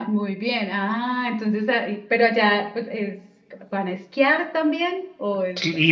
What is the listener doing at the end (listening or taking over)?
taking over